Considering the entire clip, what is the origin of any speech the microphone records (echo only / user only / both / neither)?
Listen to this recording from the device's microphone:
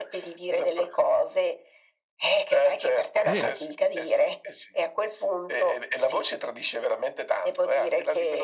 both